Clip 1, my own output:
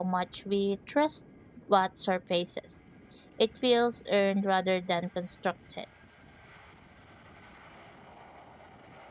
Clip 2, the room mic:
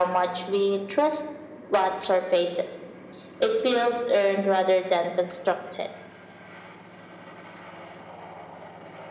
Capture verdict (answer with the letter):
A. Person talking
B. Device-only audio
B